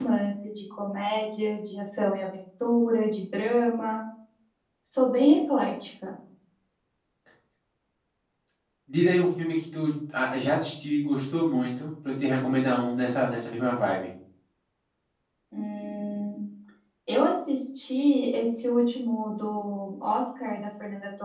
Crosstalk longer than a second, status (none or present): none